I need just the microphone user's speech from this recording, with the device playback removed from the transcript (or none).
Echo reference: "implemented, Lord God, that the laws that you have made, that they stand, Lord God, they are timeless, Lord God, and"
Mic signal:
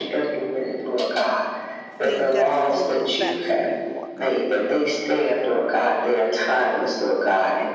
thing that is holding them back from you, Lord God.